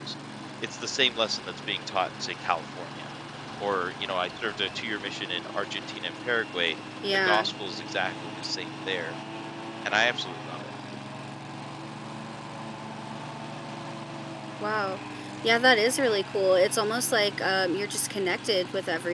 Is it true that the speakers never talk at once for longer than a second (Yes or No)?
Yes